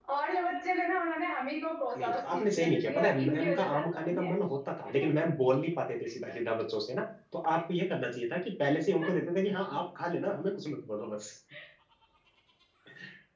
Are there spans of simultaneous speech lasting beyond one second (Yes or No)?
Yes